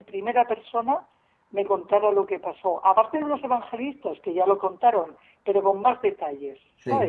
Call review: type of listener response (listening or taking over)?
taking over